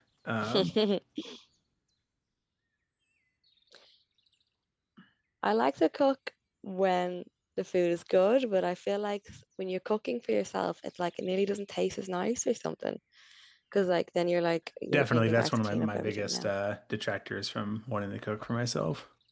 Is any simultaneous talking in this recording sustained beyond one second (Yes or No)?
Yes